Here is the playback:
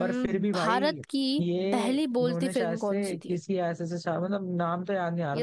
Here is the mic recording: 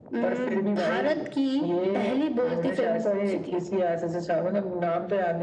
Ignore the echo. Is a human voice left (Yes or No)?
No